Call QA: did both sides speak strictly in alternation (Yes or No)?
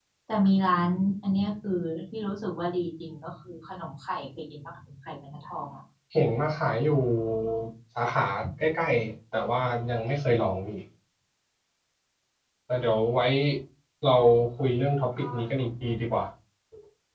Yes